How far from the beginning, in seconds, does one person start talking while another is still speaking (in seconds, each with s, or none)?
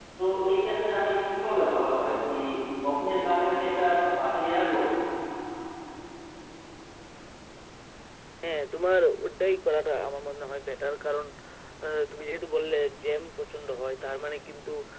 none